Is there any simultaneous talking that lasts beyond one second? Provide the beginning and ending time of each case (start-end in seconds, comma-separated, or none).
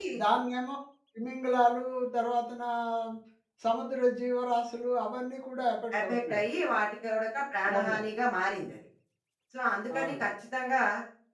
none